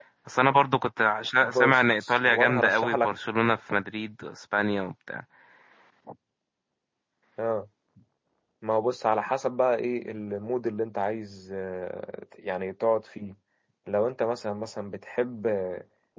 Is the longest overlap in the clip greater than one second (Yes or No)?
Yes